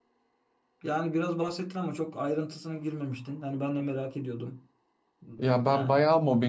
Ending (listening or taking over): taking over